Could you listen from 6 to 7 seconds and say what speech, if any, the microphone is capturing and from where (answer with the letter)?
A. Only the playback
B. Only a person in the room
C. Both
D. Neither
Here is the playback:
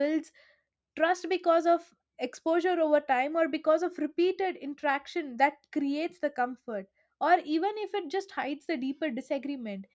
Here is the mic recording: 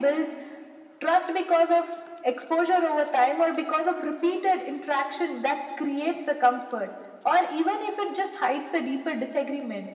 A